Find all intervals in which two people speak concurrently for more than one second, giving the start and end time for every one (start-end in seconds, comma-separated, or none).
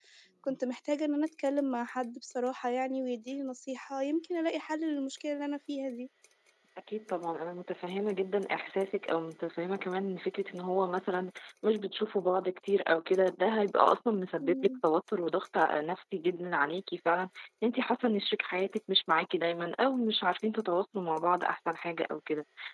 none